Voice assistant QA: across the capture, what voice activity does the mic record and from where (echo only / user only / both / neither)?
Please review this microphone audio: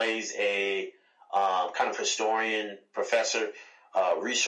echo only